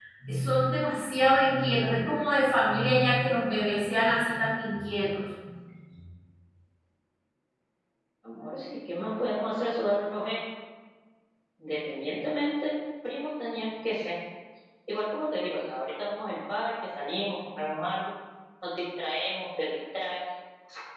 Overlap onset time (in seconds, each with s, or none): none